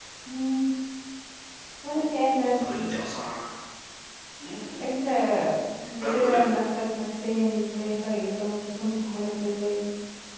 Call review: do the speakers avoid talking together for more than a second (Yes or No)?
Yes